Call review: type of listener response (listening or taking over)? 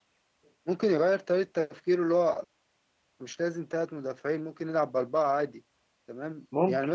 listening